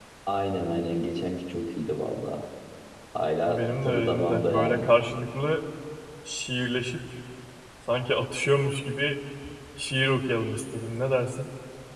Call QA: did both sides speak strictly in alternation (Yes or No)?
No